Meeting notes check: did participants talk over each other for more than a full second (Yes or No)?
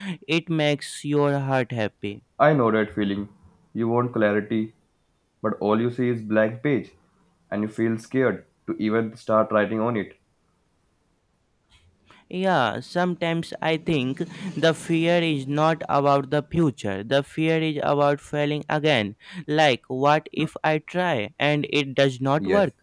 No